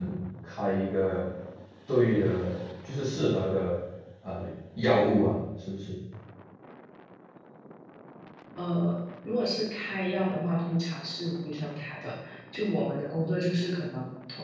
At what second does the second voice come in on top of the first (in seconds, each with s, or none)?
none